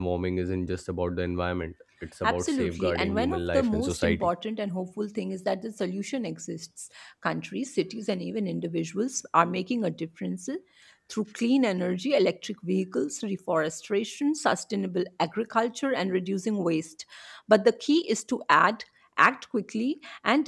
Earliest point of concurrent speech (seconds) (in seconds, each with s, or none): 2.2 s